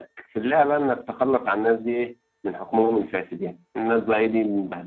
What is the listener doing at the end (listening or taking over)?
listening